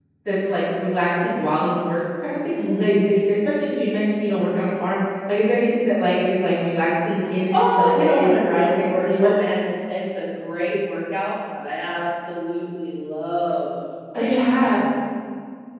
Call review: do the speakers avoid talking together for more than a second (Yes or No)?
No